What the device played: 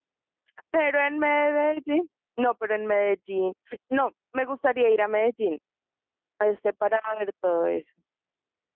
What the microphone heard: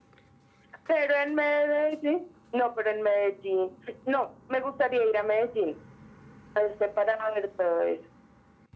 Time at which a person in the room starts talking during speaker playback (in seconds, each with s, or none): none